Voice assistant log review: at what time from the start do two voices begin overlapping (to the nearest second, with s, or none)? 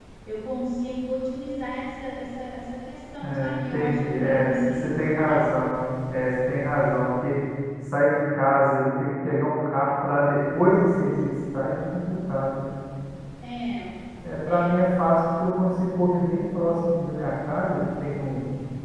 3 s